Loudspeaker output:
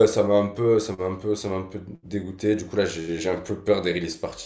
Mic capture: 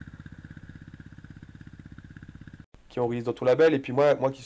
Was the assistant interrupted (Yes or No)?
Yes